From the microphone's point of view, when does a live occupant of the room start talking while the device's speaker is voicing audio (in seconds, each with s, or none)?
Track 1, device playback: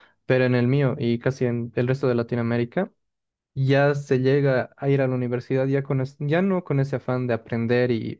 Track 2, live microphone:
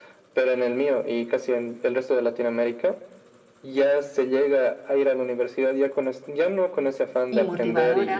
7.3 s